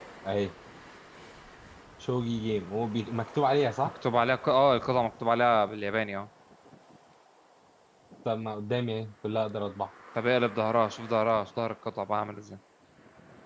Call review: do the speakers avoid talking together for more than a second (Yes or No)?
Yes